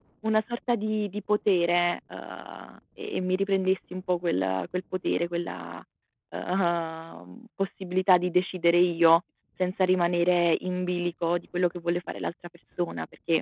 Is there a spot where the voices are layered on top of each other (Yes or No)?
No